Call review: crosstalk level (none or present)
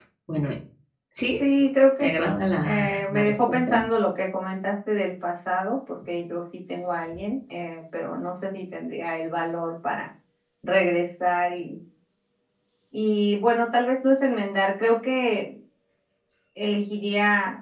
present